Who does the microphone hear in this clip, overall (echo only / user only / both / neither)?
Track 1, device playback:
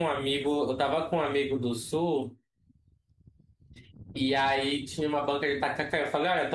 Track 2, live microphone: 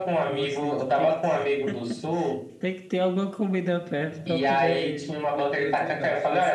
both